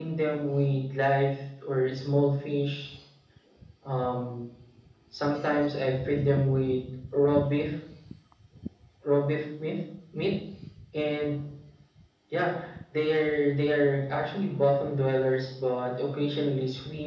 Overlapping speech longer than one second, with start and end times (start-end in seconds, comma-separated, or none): none